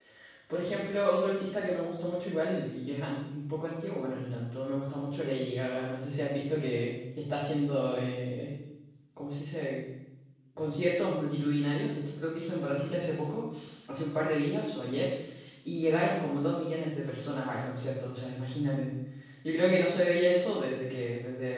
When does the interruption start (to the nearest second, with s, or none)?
none